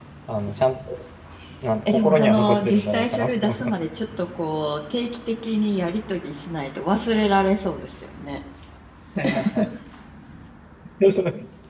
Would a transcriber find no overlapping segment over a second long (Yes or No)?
No